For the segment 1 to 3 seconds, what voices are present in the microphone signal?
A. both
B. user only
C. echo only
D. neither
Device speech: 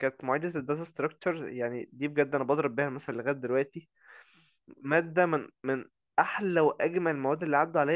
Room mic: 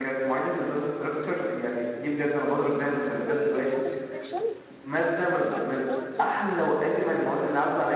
C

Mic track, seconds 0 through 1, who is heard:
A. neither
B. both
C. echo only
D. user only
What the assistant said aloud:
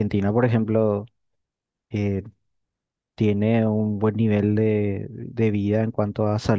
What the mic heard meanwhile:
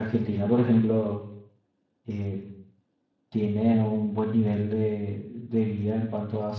C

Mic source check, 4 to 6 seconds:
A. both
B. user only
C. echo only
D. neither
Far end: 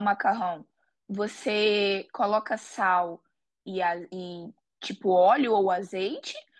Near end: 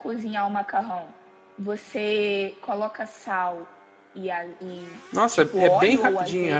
A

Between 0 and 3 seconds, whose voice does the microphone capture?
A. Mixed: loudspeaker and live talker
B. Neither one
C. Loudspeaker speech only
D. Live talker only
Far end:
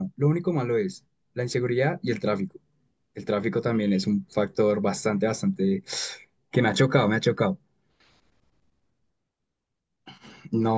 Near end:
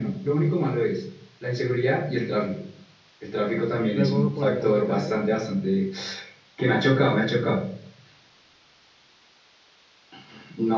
C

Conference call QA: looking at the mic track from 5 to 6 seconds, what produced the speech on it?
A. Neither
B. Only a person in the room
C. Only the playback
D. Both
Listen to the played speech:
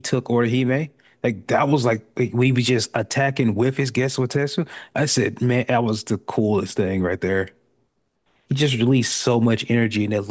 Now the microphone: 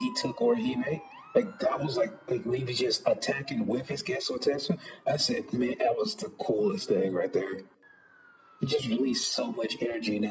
C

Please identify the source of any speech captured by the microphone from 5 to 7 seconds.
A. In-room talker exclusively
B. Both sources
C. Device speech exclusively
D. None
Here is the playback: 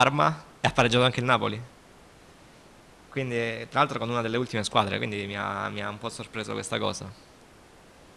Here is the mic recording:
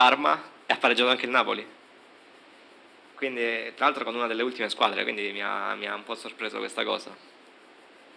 C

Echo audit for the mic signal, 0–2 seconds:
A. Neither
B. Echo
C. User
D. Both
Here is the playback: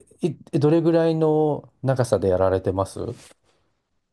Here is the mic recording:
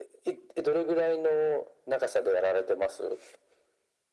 B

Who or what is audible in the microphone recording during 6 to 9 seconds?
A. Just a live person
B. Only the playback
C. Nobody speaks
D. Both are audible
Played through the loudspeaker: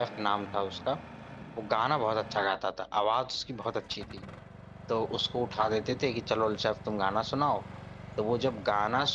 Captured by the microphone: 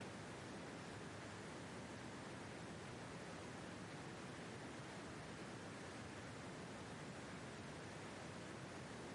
C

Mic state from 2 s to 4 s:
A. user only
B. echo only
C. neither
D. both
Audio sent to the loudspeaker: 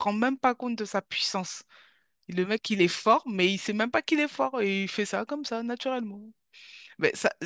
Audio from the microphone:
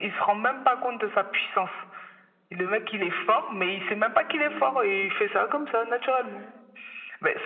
B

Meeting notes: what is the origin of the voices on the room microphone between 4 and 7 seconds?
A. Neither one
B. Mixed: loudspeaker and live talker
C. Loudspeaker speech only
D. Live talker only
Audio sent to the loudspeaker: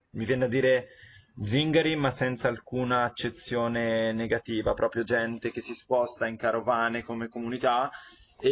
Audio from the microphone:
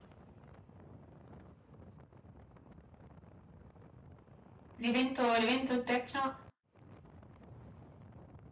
D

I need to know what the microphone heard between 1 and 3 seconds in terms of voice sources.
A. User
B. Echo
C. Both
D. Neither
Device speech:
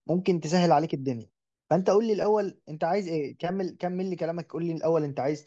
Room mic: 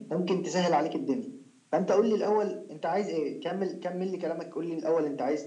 B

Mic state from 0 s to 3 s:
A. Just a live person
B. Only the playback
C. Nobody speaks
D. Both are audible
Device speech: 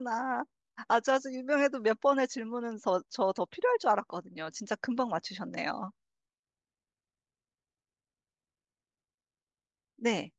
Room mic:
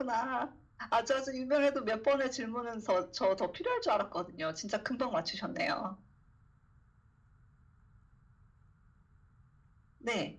B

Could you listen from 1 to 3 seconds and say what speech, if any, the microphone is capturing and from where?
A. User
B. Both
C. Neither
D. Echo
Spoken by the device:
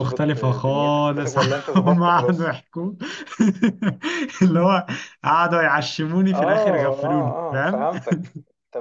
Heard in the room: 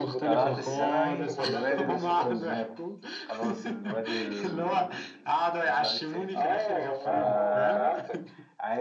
B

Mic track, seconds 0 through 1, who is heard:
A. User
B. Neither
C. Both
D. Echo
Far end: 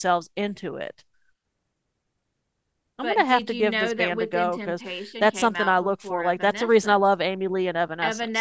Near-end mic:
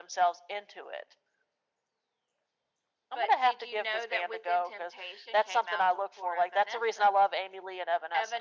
D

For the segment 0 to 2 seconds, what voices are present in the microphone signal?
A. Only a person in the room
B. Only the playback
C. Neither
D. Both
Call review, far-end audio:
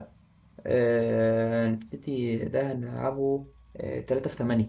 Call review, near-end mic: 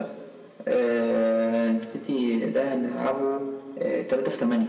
B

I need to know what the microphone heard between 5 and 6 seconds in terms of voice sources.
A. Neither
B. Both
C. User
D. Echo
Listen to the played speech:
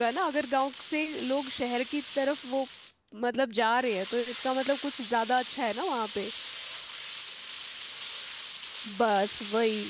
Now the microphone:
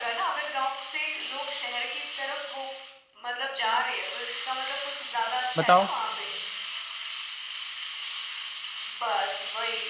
B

